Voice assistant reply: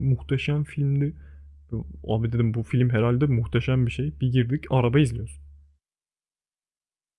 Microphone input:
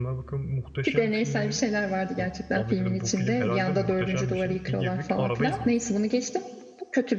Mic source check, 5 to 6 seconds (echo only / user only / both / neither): both